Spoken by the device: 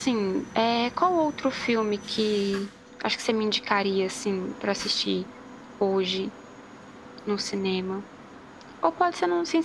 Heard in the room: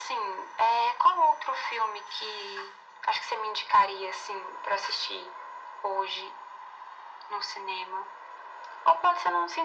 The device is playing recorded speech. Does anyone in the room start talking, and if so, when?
none

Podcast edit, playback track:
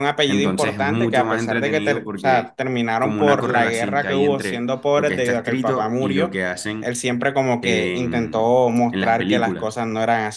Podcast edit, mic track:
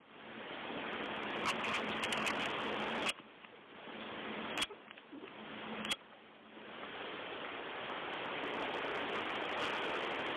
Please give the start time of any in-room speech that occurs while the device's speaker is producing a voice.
none

